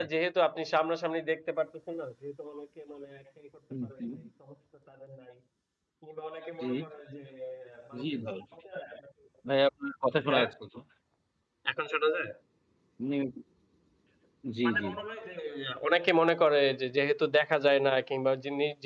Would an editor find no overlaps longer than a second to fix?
Yes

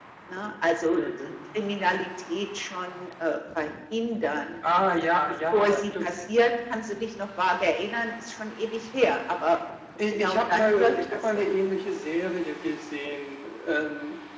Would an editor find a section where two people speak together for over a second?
Yes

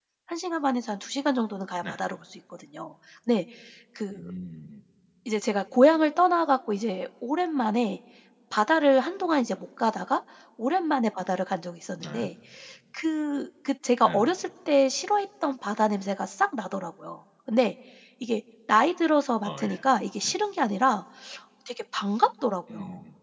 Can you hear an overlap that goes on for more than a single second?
No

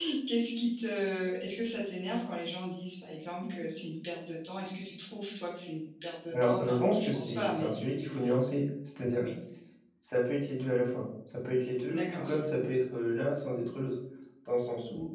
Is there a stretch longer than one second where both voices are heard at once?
Yes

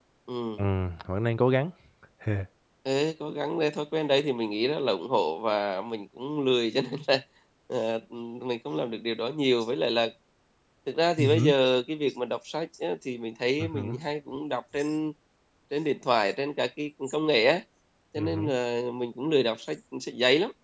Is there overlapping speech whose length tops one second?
No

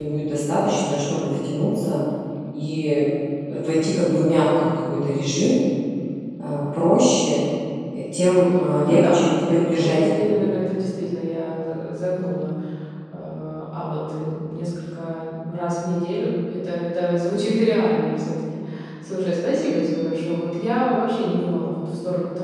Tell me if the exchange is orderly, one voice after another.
No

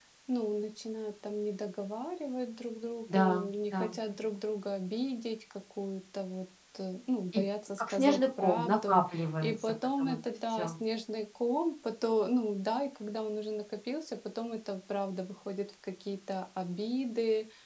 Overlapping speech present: Yes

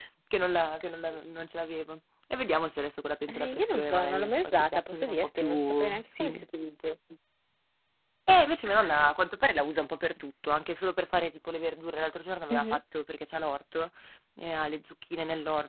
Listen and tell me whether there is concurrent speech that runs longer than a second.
Yes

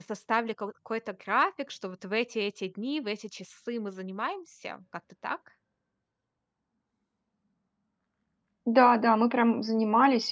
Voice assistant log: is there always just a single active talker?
Yes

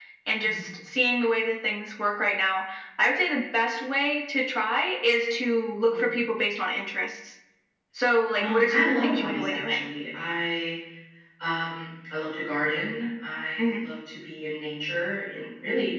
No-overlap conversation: No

